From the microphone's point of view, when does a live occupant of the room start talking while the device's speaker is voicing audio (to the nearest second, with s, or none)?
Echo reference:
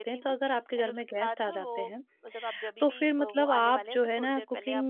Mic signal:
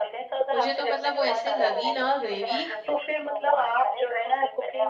1 s